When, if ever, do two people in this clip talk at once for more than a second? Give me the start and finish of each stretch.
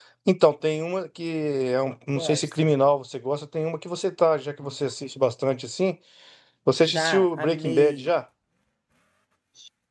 6.7-8.1

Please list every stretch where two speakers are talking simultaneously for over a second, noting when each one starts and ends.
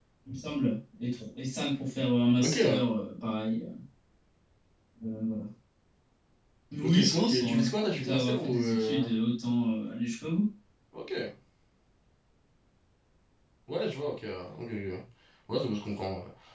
6.8-9.1

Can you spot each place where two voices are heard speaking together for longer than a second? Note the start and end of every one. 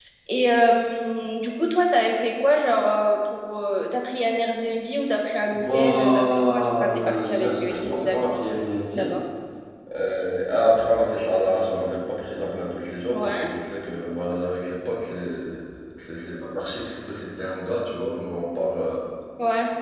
5.5-8.3

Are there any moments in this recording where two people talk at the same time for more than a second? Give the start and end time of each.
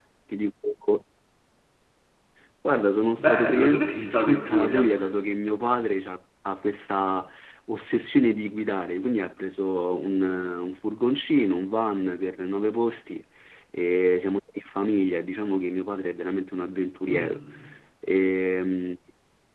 3.2-4.9

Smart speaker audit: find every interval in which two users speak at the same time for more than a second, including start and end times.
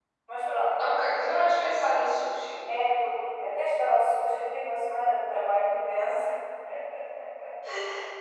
none

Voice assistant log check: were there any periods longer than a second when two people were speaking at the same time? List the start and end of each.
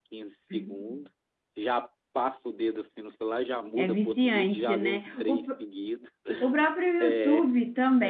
3.8-5.5

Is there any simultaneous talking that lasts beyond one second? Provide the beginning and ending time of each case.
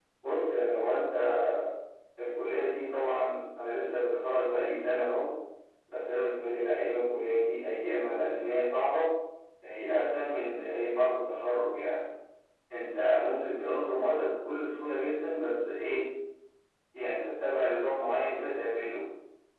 none

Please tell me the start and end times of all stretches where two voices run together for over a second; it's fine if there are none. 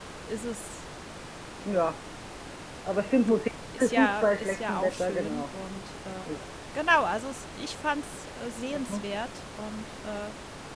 3.8-5.4

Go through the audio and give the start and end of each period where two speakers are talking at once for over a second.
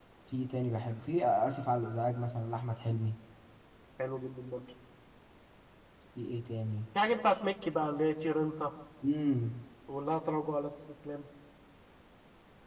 none

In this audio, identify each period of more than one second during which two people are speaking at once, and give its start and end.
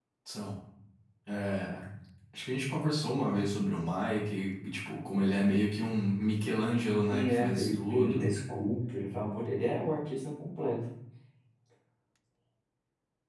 7.1-8.3

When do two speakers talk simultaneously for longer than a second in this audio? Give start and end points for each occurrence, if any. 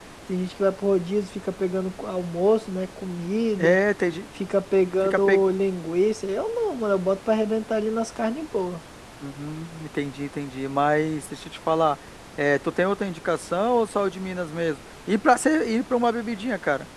none

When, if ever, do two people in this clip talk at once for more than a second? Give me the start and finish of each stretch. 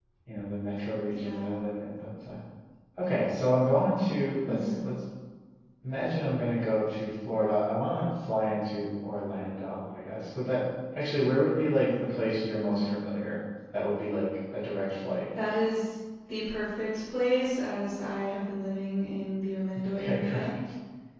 none

